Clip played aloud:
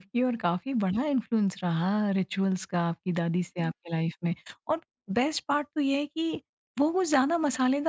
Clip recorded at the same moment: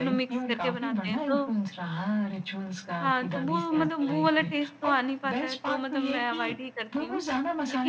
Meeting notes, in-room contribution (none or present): present